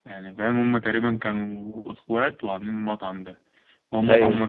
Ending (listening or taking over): listening